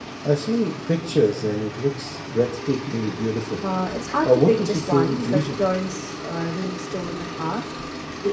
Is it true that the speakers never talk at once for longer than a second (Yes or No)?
No